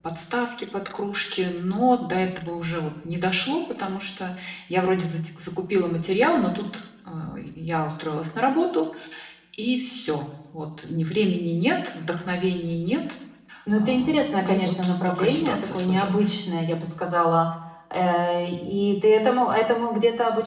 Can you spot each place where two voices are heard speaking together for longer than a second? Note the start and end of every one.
13.8-16.3

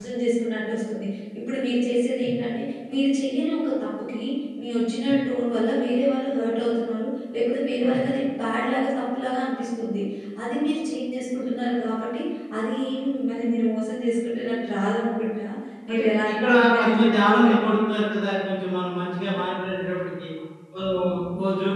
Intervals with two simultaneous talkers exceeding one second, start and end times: 15.9-17.7

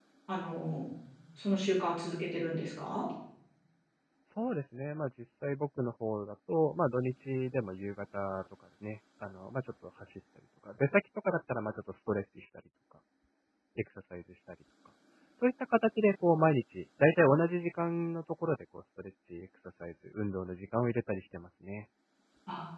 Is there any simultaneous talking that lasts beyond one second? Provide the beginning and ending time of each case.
none

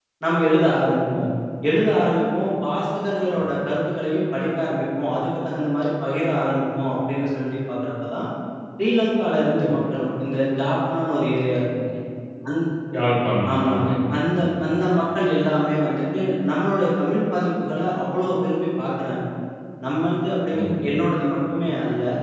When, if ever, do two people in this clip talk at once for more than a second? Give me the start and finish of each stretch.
none

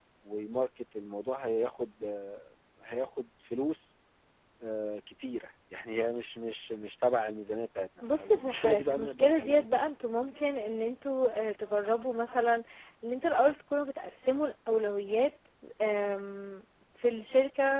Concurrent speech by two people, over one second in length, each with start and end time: 8.0-9.9

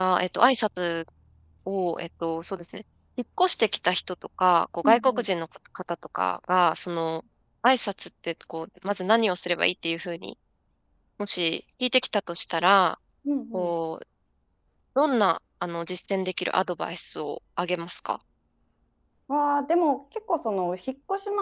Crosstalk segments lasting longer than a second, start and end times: none

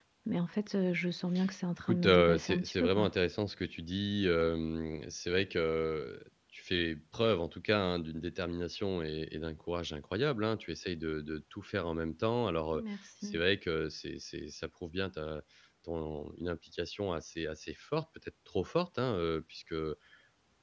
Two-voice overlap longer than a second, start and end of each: 1.8-3.1

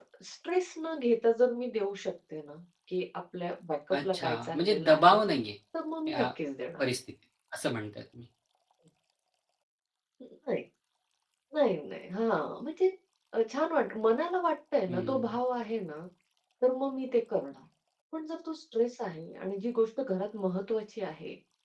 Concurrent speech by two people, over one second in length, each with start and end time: 3.9-5.2

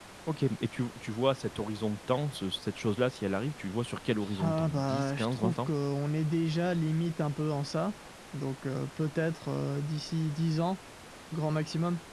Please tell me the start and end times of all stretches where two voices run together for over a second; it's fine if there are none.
4.4-5.7

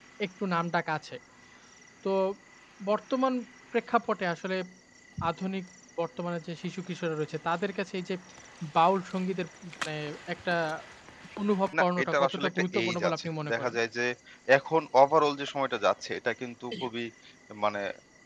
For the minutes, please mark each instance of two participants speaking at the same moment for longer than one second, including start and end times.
11.8-13.7

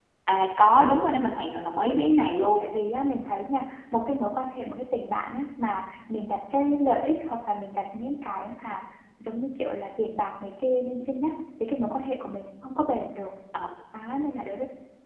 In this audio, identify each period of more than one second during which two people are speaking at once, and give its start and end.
none

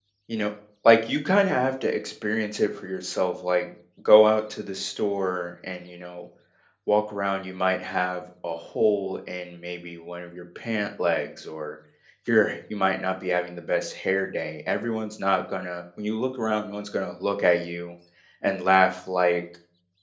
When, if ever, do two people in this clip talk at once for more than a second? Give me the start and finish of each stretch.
none

